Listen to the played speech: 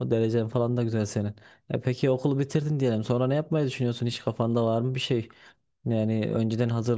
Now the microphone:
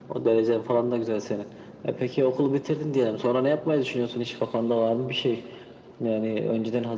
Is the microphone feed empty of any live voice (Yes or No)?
Yes